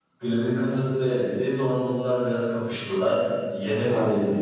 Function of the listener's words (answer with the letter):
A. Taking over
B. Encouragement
B